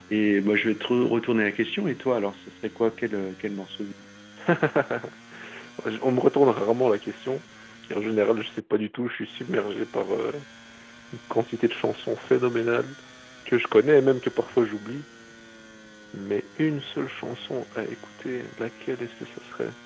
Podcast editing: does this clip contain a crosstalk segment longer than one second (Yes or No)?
No